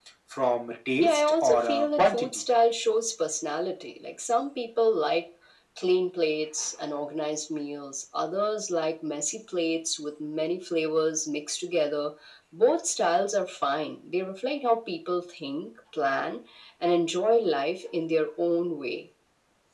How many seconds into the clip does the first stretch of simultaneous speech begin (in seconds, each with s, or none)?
1.0 s